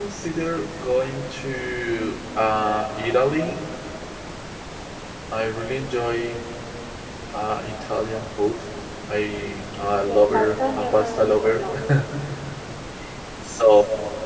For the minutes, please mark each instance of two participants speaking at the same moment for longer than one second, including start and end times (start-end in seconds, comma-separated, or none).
10.0-11.6